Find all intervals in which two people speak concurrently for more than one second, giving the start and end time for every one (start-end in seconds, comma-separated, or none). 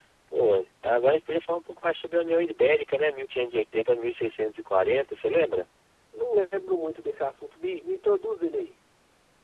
none